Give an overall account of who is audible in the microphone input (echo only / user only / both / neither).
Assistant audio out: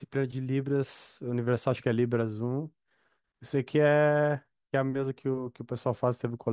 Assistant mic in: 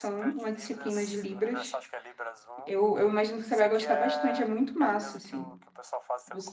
both